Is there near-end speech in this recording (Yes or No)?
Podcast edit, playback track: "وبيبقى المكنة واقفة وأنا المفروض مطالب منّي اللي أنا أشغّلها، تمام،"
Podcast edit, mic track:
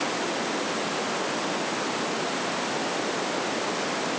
No